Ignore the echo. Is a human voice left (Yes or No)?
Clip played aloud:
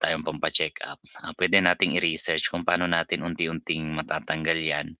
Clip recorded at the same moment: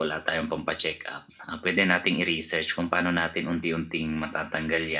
No